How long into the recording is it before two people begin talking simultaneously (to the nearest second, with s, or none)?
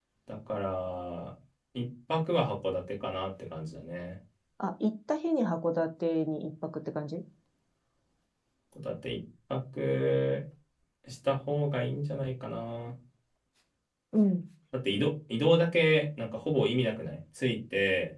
none